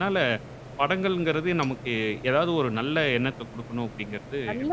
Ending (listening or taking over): taking over